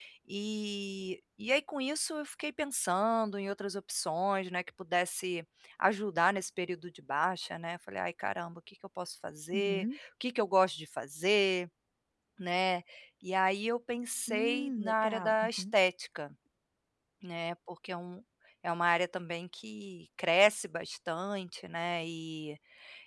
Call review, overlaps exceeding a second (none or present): present